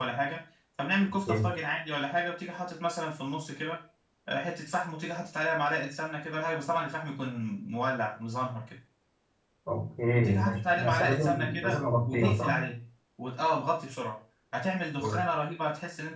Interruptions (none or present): present